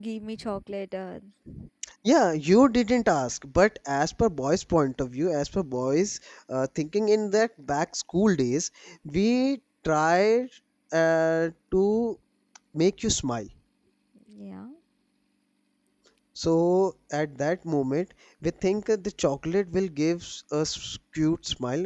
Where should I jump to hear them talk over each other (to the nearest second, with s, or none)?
none